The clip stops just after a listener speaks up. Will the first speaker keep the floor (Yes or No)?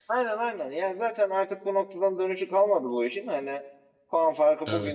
Yes